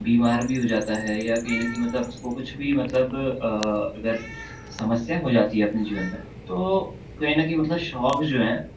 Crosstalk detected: No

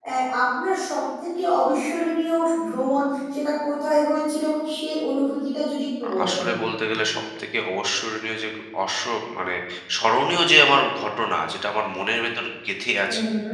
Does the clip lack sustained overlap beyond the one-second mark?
Yes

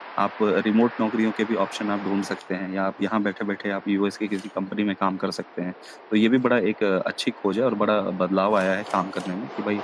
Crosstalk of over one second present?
No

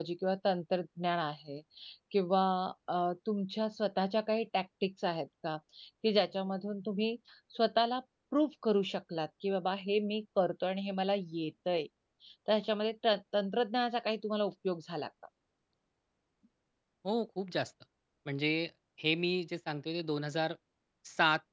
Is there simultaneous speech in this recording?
No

